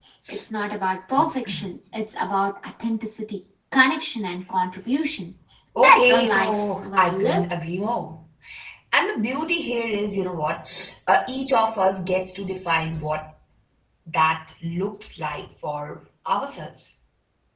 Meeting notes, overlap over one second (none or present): present